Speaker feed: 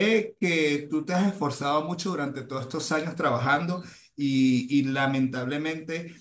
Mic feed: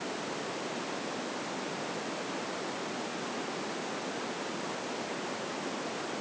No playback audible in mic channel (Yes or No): Yes